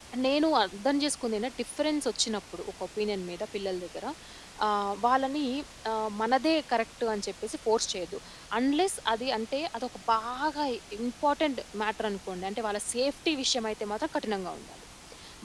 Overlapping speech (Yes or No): No